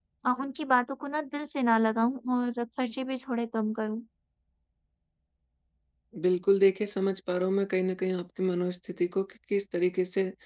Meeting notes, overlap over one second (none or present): none